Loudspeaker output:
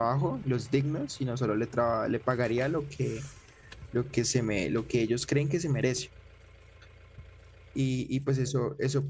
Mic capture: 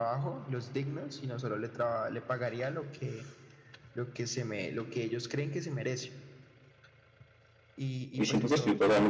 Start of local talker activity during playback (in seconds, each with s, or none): 8.2 s